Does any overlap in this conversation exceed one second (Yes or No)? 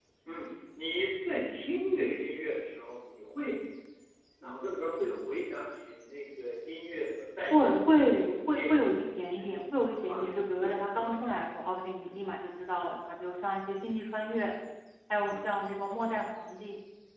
Yes